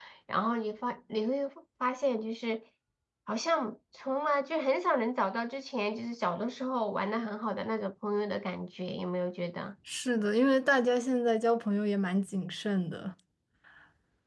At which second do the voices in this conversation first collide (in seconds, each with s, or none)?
none